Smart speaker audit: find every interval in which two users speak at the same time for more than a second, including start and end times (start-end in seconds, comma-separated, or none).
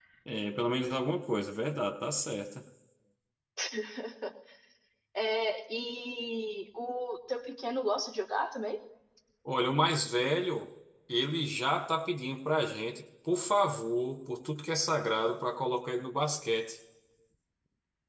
none